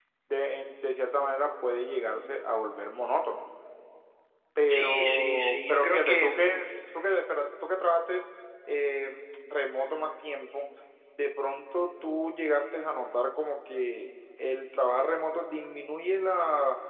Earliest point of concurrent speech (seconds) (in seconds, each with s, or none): 4.7 s